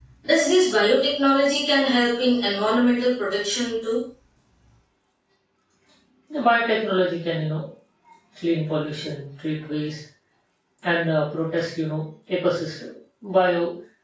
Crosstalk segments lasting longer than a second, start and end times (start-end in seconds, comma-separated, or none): none